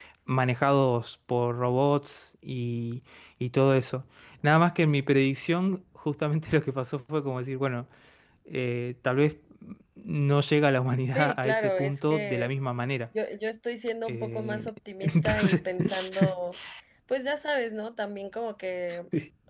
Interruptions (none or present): present